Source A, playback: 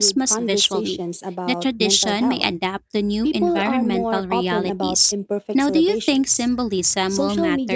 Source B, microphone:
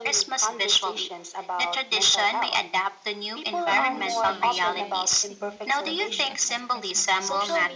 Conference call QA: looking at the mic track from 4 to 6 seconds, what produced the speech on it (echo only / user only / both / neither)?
both